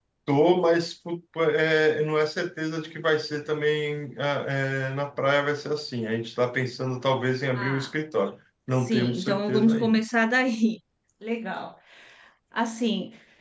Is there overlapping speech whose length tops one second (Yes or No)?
Yes